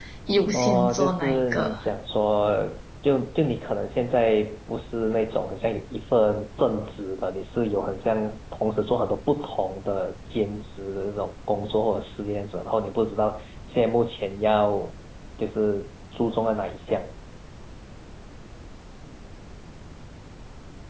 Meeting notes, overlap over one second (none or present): present